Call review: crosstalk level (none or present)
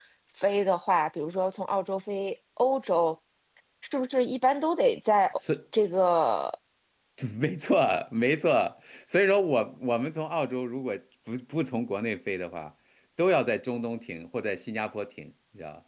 none